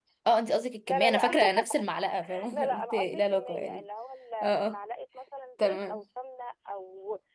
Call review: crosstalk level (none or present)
present